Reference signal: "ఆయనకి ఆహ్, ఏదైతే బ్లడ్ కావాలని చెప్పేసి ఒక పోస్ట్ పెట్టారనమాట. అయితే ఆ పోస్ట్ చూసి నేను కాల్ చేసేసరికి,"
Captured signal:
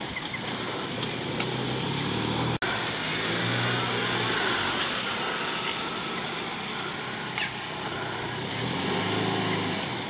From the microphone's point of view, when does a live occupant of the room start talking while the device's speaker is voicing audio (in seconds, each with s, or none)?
none